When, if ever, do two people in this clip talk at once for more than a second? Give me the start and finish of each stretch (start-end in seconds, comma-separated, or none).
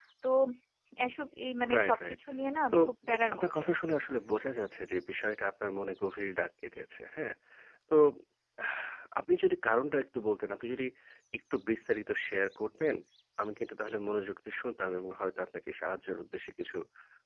2.7-3.9